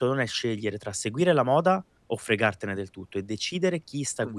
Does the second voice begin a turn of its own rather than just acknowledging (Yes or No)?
No